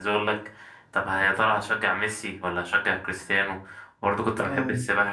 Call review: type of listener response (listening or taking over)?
listening